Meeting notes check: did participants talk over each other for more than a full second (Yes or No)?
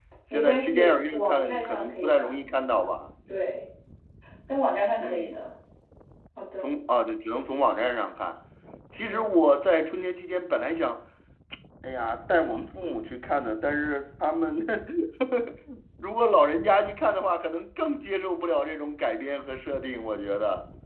Yes